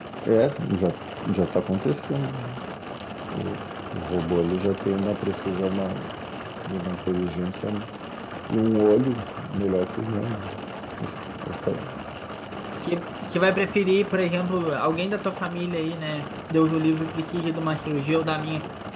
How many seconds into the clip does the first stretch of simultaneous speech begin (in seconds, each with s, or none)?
none